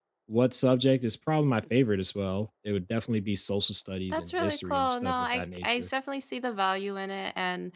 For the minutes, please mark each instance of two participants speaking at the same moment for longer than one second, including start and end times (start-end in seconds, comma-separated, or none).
4.1-5.9